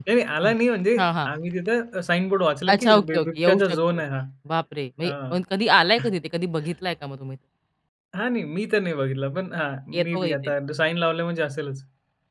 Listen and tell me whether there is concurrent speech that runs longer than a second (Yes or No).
Yes